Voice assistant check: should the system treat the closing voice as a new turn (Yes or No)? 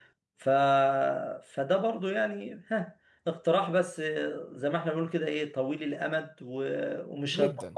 No